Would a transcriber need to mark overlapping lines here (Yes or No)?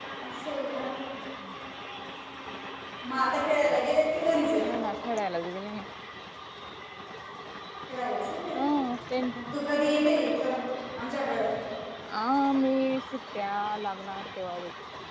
No